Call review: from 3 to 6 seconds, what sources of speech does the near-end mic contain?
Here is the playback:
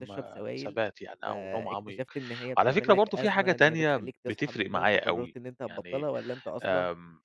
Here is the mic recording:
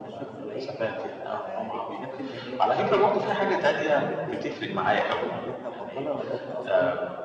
echo only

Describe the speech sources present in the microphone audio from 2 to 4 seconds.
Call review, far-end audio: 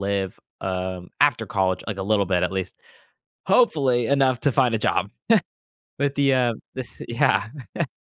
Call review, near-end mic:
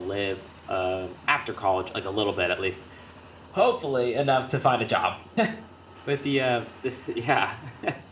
echo only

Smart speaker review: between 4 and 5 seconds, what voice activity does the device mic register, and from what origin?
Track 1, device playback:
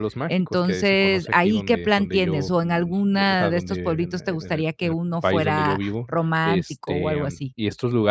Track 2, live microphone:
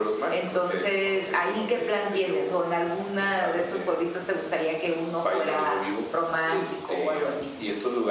echo only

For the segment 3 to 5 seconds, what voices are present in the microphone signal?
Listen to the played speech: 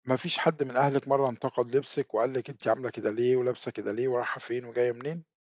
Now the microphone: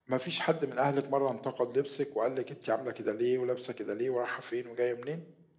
echo only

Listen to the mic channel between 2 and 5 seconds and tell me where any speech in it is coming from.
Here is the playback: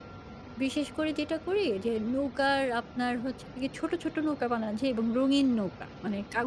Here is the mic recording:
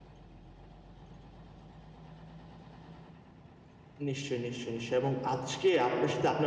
user only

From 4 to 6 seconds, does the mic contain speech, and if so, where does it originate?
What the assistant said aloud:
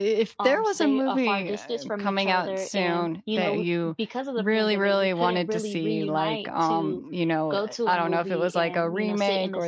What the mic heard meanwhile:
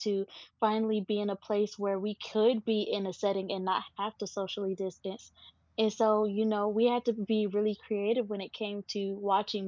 user only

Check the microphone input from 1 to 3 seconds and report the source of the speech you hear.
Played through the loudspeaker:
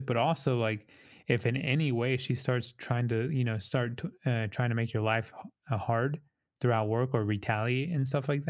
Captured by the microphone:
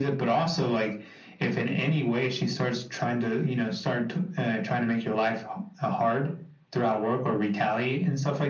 echo only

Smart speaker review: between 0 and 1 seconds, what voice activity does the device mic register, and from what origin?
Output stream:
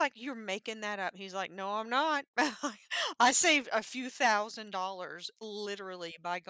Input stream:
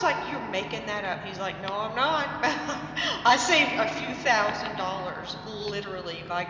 echo only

